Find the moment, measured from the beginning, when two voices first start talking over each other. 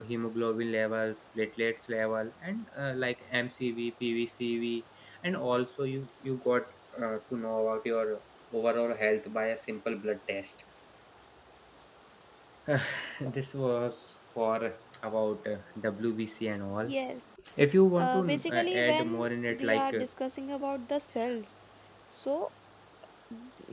18 s

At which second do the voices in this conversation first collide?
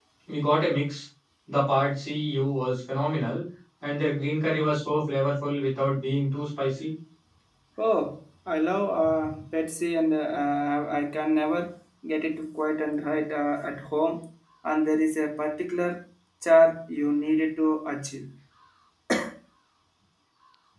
none

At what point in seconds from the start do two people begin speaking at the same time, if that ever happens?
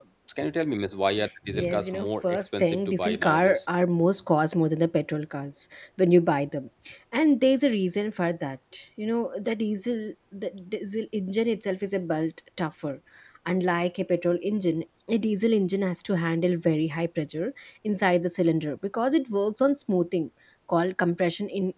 1 s

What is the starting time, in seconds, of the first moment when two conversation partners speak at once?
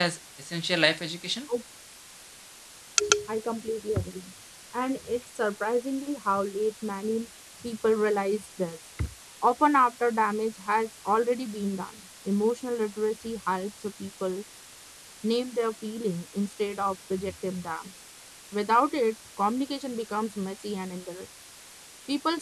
none

